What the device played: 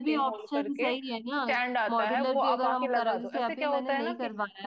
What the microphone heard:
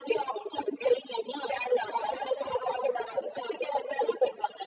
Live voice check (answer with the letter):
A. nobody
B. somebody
A